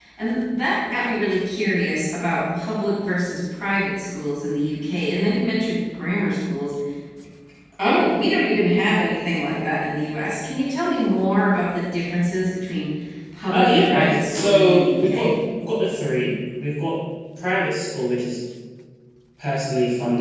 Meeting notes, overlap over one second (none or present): present